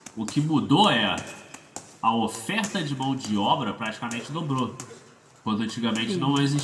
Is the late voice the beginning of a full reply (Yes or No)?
No